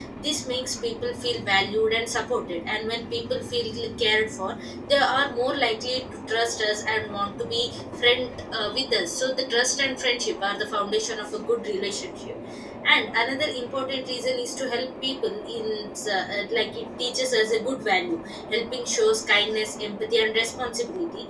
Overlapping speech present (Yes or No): No